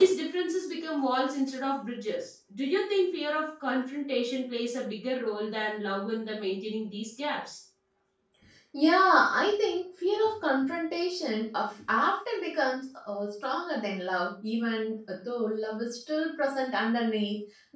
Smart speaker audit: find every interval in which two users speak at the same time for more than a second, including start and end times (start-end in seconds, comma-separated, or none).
none